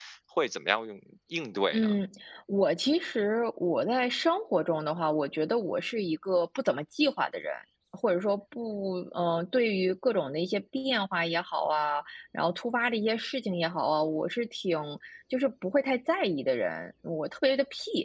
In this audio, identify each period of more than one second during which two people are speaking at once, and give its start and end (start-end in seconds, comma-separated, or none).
none